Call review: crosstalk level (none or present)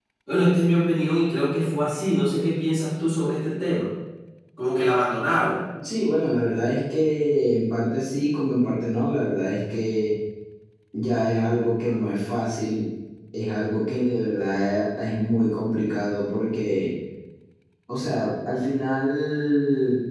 none